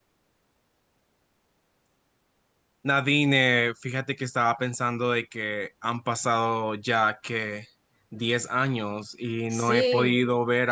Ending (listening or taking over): listening